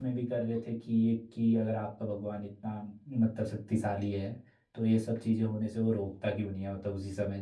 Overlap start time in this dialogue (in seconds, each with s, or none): none